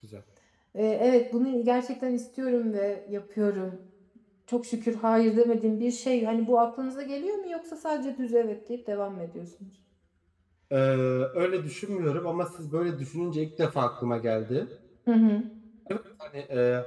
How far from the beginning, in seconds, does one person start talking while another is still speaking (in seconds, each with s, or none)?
none